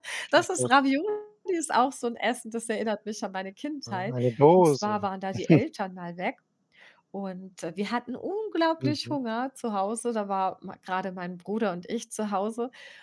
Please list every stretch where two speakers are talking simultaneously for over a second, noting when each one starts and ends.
none

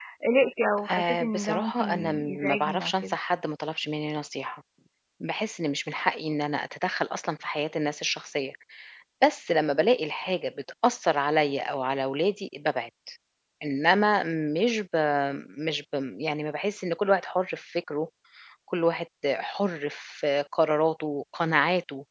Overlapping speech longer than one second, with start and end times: 0.9-3.1

